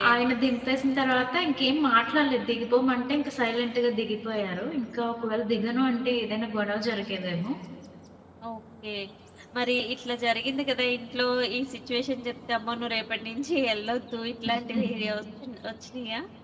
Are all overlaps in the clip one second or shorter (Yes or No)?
Yes